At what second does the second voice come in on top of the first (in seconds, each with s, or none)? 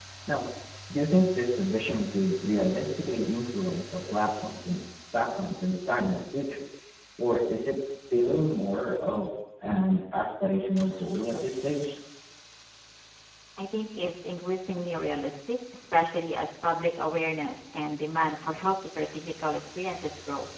none